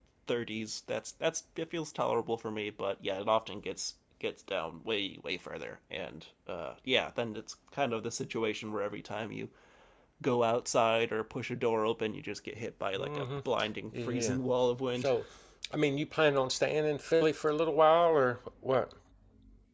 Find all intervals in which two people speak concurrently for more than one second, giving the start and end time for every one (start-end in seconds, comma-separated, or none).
none